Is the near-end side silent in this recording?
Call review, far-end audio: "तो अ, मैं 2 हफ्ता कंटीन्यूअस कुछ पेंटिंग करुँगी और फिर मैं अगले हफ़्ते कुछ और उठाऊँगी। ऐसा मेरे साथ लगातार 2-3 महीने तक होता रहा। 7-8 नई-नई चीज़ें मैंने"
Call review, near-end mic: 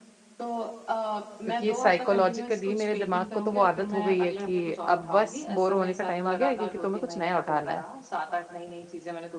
No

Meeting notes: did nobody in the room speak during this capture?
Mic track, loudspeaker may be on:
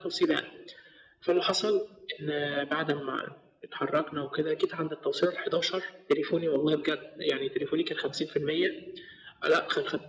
Yes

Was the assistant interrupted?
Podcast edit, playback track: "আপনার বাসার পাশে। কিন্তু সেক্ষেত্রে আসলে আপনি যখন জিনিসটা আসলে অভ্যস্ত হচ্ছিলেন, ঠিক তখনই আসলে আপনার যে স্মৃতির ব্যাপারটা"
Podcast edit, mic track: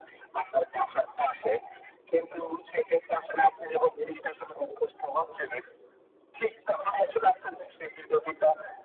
No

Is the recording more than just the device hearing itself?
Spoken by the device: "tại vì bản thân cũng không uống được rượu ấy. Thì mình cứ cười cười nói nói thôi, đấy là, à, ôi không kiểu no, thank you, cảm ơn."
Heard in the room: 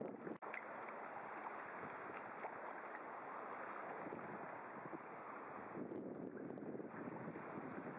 No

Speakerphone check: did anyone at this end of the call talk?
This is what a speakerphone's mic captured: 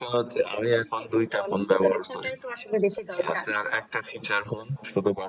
No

